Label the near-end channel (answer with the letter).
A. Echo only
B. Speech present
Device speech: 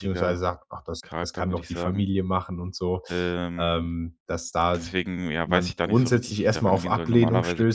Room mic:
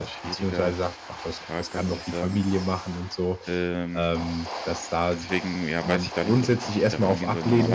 A